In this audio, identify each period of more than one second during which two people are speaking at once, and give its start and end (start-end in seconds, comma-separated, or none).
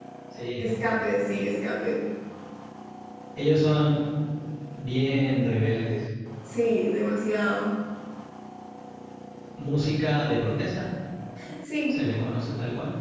none